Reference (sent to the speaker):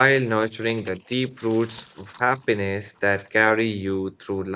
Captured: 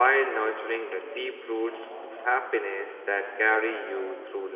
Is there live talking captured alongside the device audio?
Yes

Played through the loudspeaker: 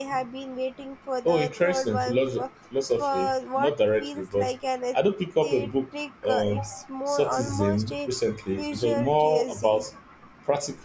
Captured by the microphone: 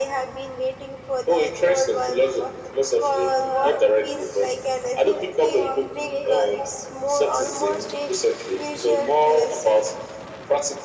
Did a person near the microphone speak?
Yes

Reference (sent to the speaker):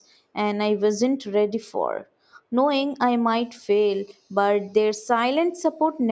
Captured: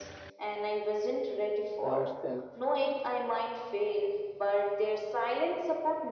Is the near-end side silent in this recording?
No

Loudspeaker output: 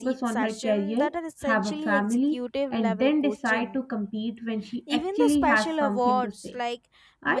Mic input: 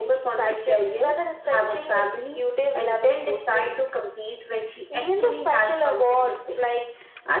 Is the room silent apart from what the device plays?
Yes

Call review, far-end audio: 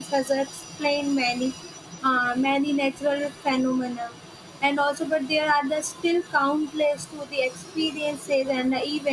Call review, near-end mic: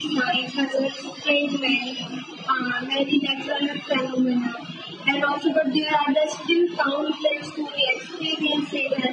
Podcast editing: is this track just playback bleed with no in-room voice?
Yes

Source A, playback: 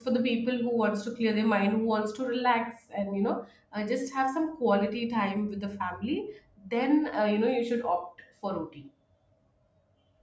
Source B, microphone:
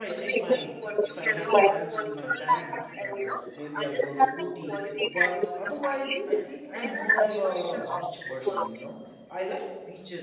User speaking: Yes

